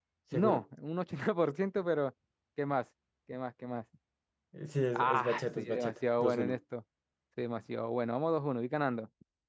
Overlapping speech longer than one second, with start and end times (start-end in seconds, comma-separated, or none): 4.9-6.6